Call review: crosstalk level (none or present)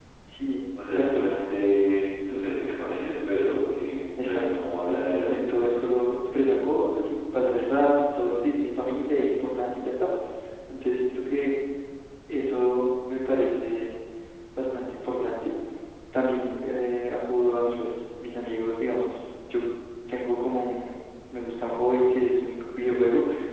present